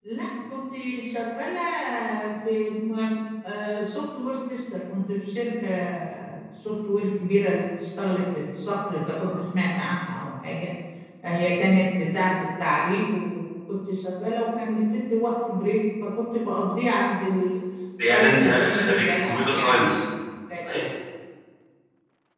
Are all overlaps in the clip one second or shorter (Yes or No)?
No